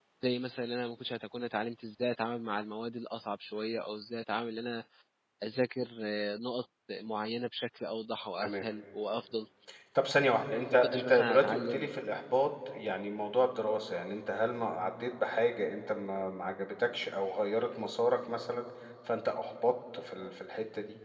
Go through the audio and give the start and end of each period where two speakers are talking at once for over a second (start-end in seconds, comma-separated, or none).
10.7-12.0